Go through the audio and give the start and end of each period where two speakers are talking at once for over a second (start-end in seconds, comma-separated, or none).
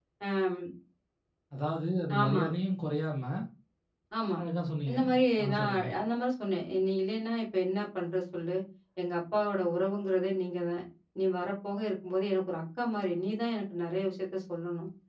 none